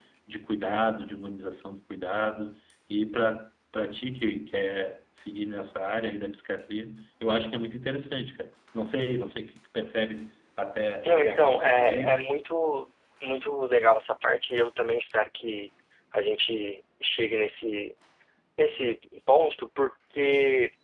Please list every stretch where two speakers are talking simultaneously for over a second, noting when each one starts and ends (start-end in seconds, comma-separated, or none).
11.0-12.3